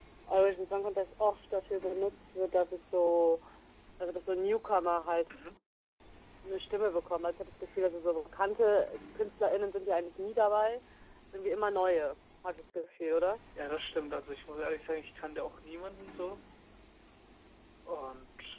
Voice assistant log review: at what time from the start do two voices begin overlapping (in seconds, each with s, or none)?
none